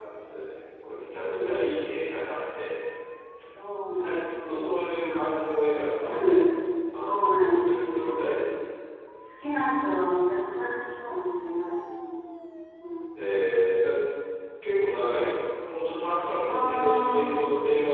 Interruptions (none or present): present